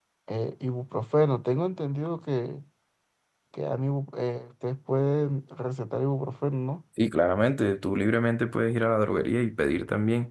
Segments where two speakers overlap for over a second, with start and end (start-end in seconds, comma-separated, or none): none